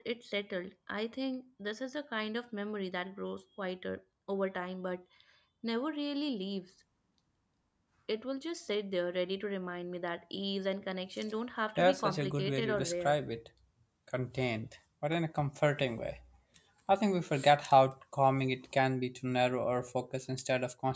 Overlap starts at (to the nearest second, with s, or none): 12 s